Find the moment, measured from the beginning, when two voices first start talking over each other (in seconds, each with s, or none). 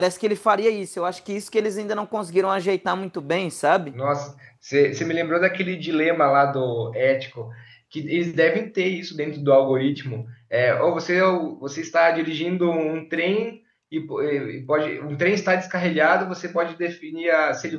none